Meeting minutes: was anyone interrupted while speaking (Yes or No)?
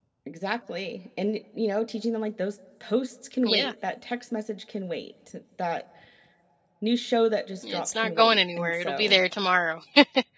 Yes